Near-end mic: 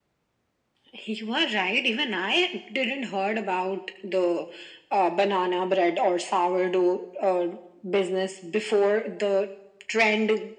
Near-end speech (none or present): none